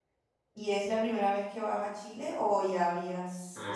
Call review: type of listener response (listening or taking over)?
taking over